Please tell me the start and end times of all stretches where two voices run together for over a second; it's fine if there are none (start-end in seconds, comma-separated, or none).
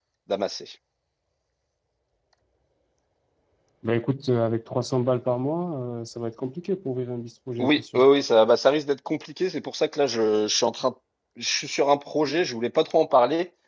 none